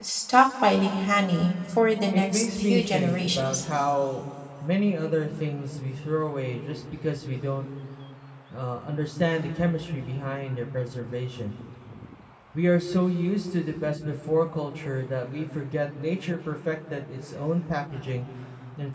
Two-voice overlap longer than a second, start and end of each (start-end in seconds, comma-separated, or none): 2.1-3.6